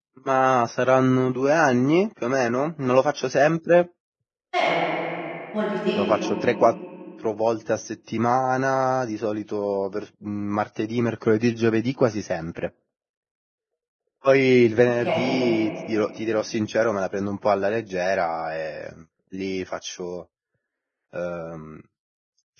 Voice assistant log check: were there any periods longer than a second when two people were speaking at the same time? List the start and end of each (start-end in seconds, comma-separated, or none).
none